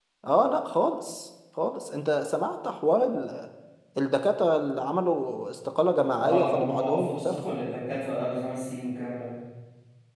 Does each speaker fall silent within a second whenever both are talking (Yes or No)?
No